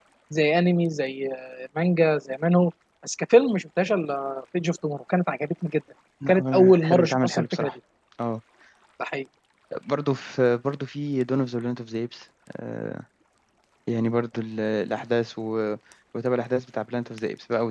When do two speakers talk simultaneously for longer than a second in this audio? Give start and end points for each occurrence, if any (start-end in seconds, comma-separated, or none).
6.3-7.7